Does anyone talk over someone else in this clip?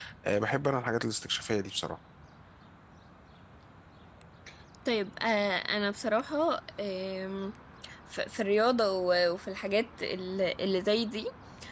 No

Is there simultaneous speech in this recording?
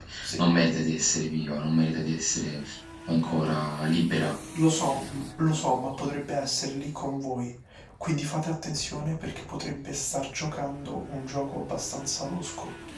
No

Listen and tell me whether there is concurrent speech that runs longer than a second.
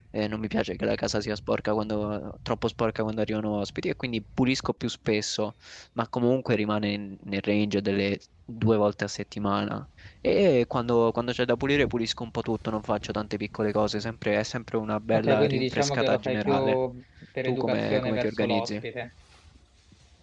Yes, from 15.1 s

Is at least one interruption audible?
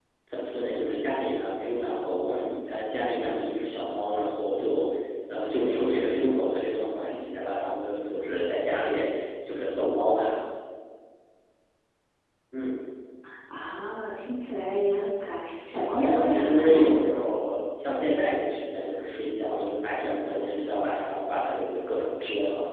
Yes, from 15.7 s

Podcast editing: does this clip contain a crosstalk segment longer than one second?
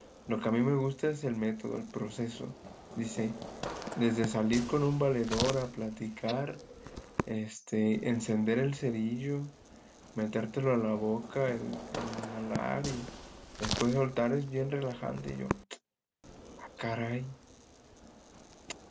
No

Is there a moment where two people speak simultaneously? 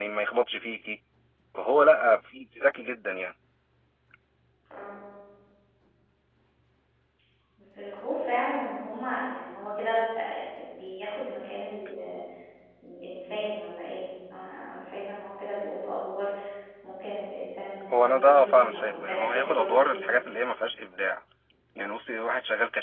Yes, from 17.9 s

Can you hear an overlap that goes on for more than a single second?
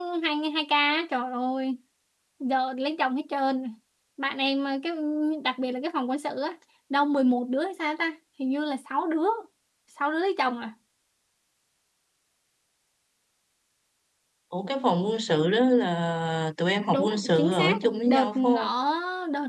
Yes, from 16.9 s

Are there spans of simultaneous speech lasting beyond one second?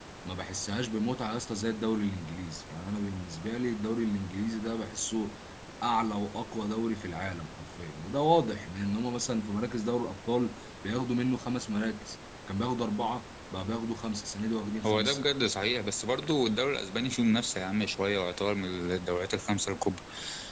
No

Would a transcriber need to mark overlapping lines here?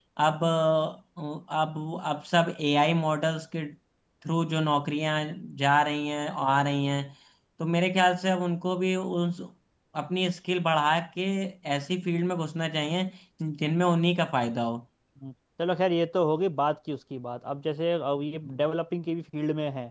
No

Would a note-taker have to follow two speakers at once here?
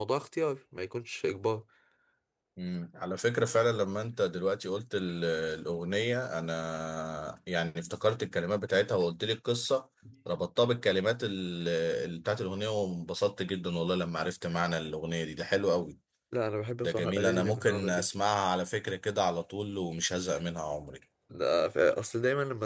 Yes, from 16.8 s

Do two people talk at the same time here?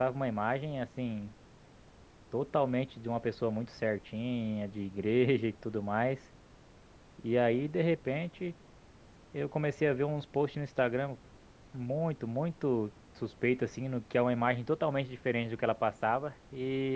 No

